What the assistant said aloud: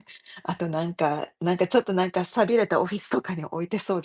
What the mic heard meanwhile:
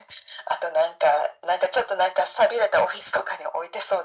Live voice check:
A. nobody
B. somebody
A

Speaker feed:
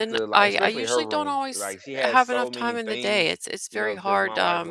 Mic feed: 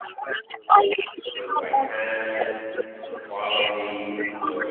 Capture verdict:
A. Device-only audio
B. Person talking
B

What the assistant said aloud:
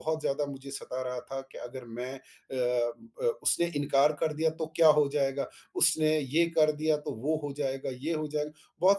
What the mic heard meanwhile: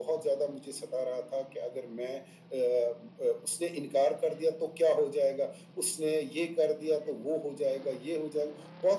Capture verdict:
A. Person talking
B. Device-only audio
B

